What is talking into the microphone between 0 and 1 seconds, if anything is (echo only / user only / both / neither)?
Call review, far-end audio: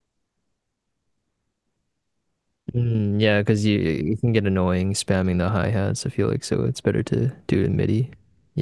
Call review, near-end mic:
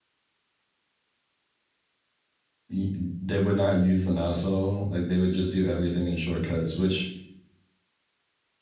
neither